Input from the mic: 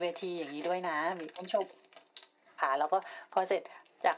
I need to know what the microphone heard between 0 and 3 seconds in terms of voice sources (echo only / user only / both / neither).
echo only